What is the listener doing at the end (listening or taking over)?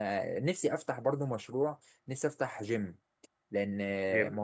listening